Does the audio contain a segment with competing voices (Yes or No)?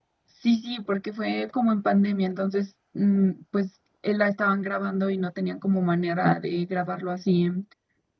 No